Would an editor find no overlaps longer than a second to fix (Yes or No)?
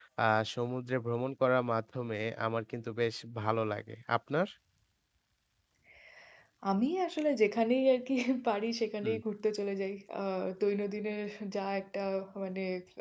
Yes